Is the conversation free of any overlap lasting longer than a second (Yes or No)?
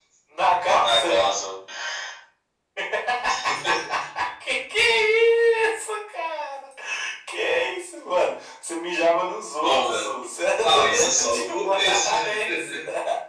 No